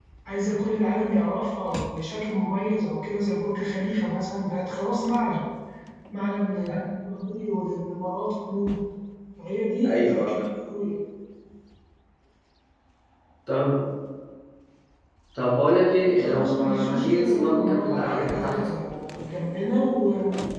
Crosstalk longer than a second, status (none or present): present